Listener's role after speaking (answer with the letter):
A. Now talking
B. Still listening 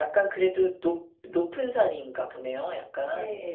A